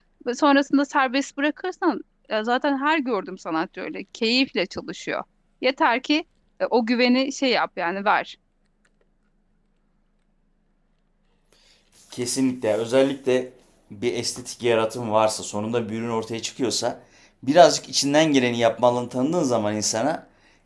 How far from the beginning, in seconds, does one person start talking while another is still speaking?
none

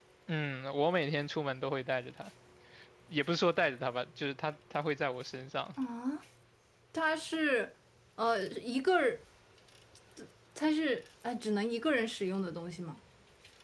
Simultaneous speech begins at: none

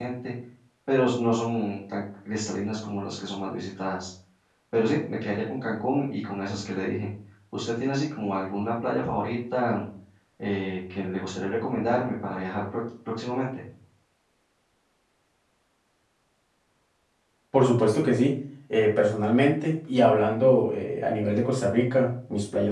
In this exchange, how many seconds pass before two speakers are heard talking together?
none

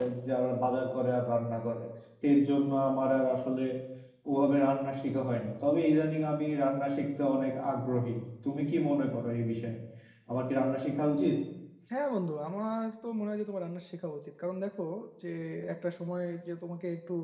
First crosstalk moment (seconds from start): none

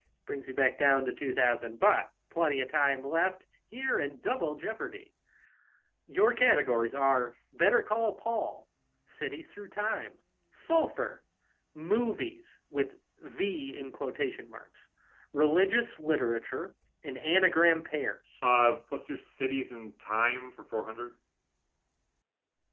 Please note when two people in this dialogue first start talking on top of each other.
none

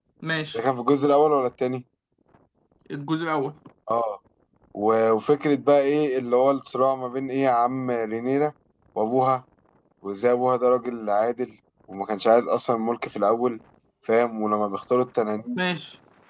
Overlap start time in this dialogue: none

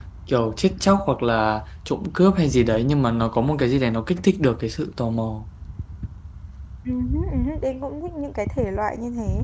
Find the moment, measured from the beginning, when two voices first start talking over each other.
none

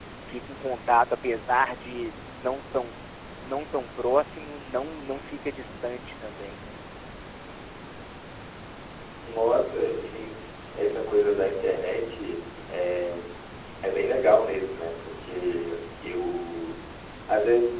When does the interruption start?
none

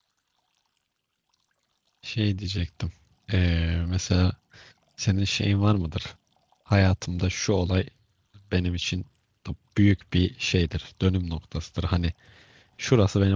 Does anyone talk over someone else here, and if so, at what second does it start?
none

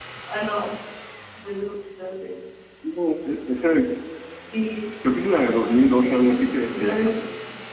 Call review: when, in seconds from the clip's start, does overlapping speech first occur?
5.1 s

